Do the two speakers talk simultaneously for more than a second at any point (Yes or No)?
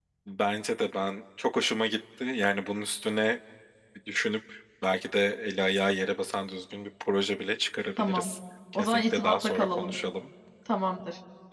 Yes